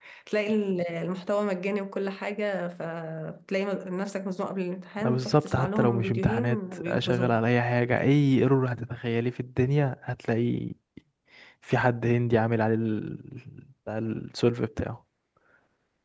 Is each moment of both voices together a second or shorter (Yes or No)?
No